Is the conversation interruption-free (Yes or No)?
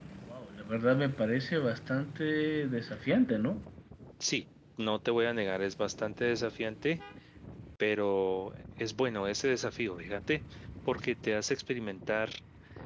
Yes